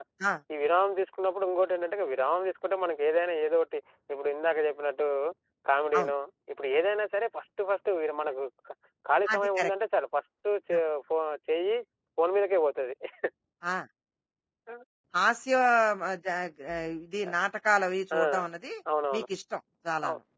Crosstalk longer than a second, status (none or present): none